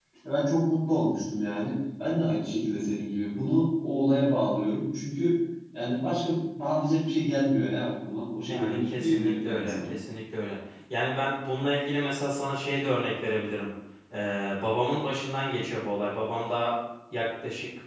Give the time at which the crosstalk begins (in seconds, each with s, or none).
8.5 s